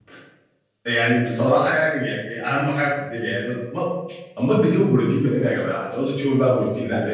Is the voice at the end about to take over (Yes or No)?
Yes